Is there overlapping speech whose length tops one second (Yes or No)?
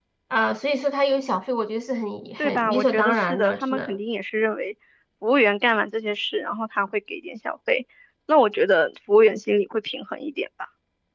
Yes